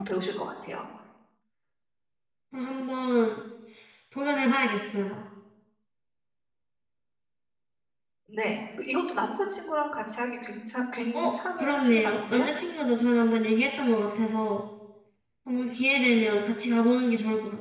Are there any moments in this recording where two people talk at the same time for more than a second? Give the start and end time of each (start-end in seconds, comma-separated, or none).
11.1-12.5